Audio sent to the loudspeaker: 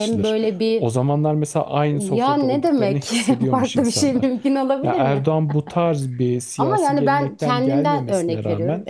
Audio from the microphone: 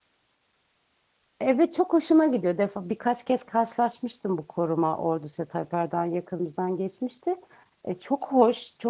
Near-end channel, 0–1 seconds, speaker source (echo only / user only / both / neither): neither